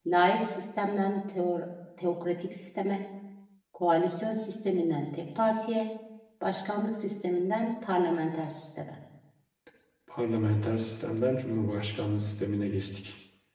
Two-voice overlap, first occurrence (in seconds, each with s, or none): none